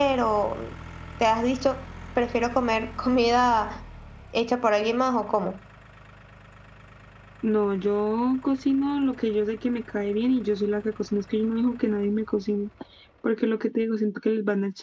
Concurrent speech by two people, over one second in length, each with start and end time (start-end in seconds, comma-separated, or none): none